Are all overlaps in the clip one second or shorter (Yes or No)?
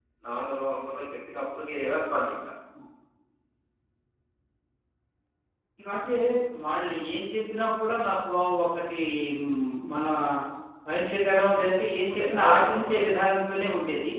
No